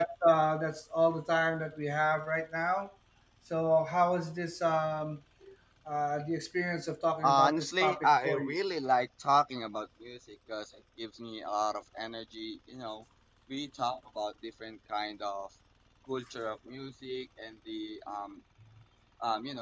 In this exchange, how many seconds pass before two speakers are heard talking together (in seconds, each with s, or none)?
7.2 s